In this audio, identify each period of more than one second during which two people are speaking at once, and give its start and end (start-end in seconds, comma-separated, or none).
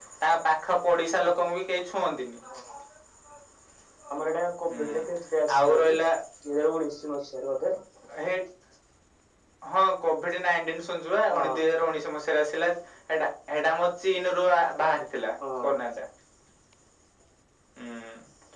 none